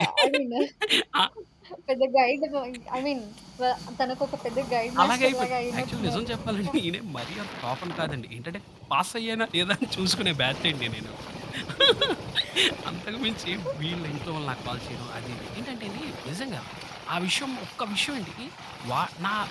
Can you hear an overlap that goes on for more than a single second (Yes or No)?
Yes